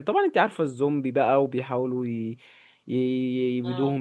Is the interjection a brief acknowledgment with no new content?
Yes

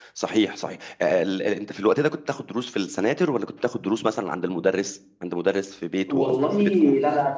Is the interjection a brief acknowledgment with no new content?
No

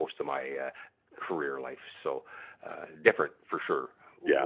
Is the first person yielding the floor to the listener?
No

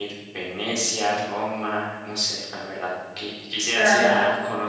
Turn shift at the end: No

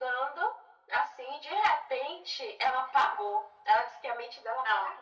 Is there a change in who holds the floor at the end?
No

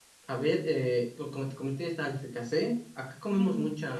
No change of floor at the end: No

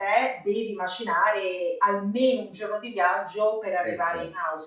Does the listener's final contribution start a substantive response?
No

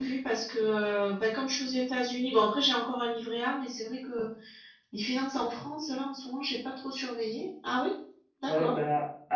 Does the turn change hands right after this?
Yes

